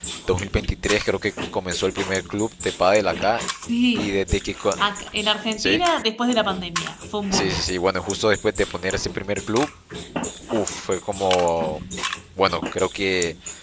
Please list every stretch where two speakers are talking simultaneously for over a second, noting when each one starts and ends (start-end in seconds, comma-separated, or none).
none